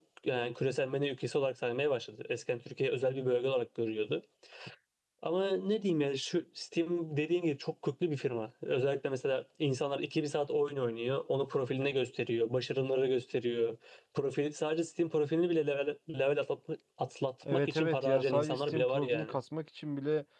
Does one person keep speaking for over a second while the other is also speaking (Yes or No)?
Yes